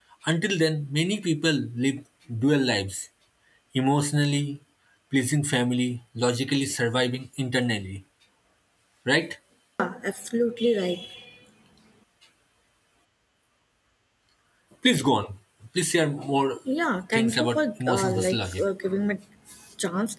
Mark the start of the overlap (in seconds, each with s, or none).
17.1 s